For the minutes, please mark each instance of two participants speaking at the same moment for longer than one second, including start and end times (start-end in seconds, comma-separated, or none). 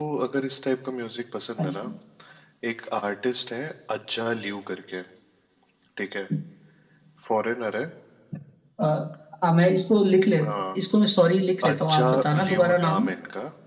11.7-13.1